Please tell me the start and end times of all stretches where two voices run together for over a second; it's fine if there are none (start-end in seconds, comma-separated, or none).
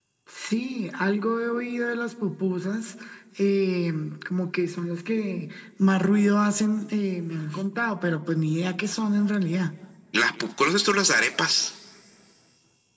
none